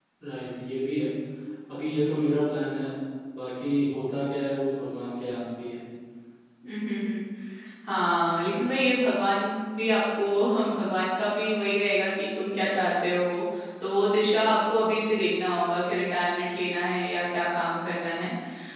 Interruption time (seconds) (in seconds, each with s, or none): none